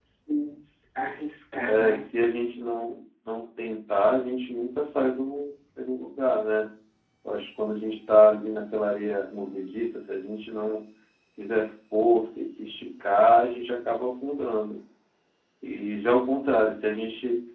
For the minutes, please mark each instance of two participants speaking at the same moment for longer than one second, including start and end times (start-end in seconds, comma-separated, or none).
none